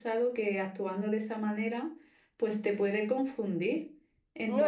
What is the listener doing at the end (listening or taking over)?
listening